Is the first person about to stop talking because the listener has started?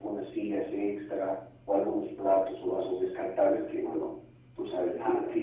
No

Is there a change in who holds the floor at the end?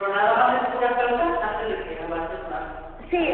Yes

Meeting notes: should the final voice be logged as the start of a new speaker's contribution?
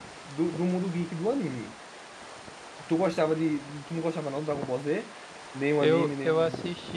Yes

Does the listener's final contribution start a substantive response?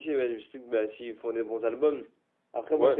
No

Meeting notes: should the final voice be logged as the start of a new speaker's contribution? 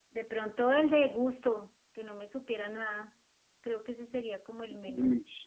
Yes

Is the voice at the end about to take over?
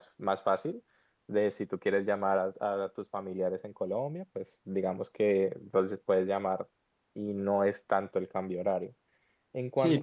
No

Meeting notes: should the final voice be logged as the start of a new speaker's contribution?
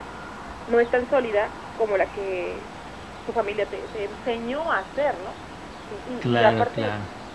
No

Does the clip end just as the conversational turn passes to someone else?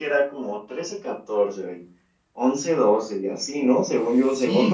Yes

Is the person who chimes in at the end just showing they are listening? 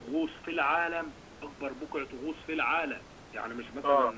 Yes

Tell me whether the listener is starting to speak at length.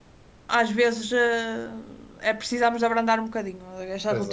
No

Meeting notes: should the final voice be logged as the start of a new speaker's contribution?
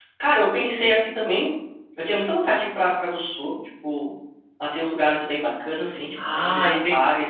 Yes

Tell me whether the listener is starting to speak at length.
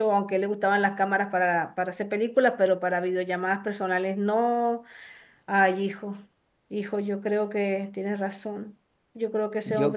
Yes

